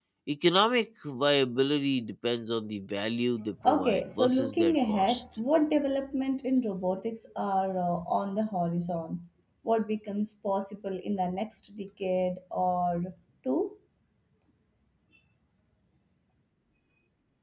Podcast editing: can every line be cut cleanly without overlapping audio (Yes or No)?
No